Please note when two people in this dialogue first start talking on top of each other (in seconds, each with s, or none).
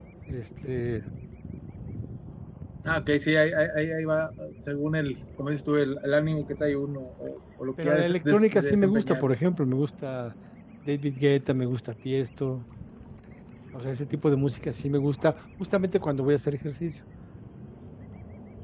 7.8 s